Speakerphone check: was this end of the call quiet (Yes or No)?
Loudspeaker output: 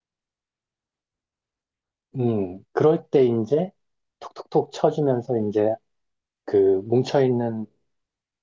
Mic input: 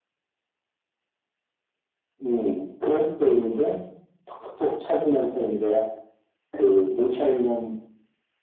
Yes